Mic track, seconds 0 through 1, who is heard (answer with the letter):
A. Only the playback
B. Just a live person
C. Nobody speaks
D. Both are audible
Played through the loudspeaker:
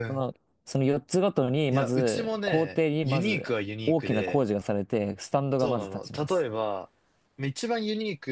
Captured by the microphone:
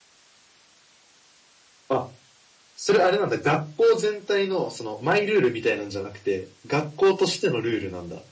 C